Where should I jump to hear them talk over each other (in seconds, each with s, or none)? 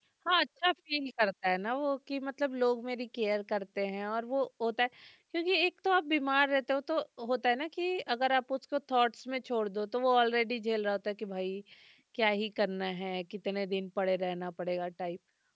none